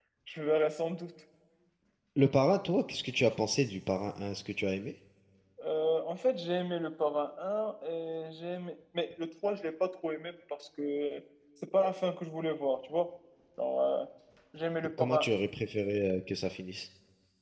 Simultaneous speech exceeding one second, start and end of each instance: none

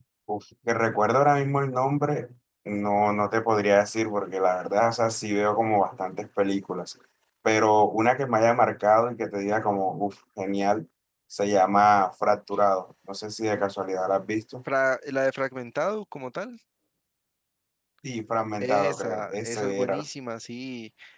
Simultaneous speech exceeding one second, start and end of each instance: 18.6-20.0

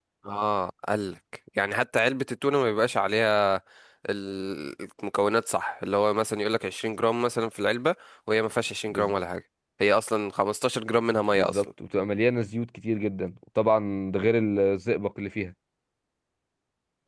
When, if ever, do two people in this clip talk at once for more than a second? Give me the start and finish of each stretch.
none

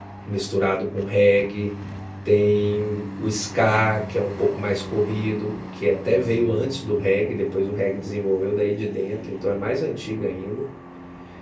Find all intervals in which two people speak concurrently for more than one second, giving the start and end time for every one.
none

